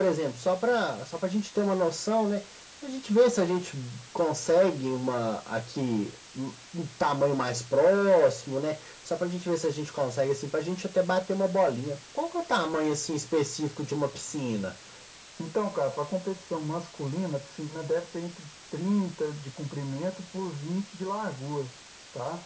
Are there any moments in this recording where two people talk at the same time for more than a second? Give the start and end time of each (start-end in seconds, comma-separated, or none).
none